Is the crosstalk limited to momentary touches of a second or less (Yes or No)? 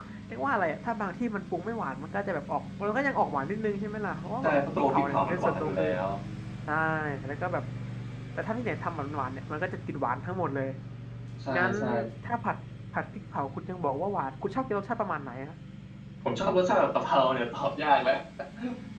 No